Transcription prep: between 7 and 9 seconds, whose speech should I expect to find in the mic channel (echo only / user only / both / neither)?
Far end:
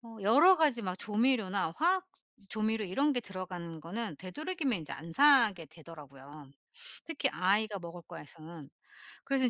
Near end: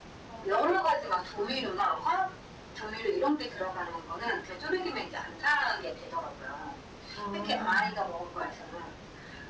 both